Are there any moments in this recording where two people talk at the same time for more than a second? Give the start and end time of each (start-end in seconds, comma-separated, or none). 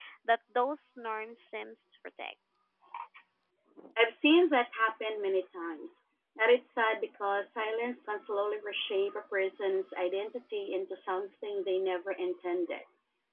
none